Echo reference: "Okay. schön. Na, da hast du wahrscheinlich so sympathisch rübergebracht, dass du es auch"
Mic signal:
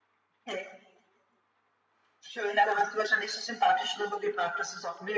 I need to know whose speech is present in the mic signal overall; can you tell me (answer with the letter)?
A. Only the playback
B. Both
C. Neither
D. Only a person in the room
A